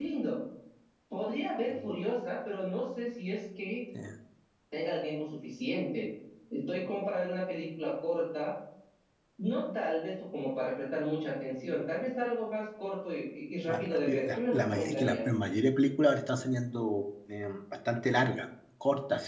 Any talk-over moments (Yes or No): Yes